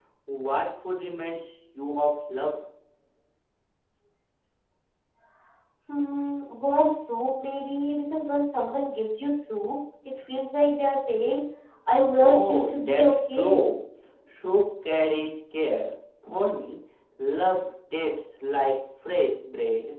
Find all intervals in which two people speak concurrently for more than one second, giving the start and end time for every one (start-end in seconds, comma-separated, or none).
12.2-13.7